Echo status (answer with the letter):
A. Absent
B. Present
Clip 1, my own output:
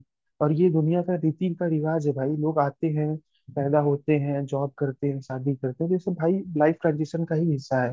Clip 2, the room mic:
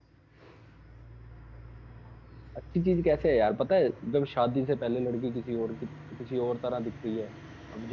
A